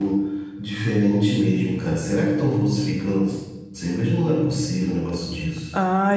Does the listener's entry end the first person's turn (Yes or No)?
Yes